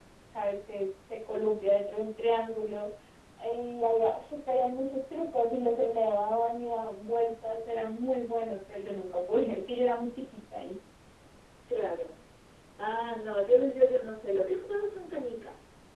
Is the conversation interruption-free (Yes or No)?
Yes